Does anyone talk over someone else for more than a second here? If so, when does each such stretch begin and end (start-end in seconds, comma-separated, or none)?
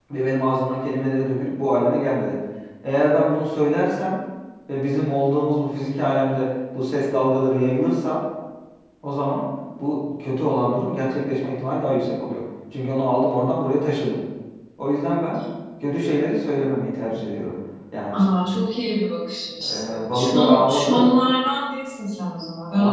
19.7-21.1